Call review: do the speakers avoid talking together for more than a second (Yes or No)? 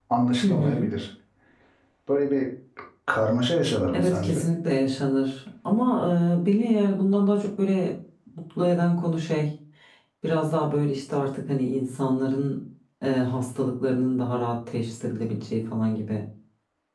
Yes